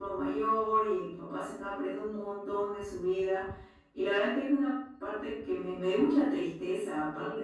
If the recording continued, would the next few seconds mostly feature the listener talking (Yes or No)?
Yes